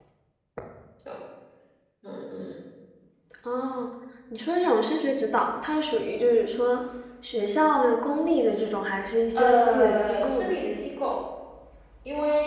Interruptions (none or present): present